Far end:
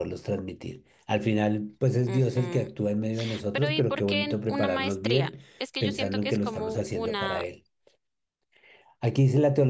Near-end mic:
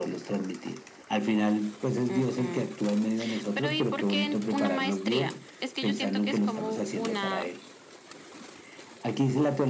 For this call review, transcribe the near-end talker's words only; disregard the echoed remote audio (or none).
none